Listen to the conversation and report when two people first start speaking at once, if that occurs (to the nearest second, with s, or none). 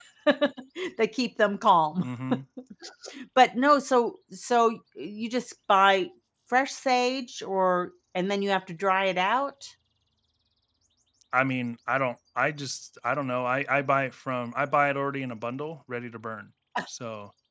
none